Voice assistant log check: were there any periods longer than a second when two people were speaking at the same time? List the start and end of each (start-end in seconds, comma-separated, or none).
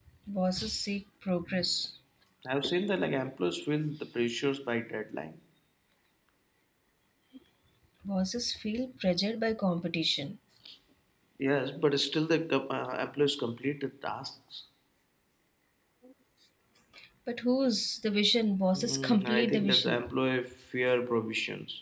18.8-20.1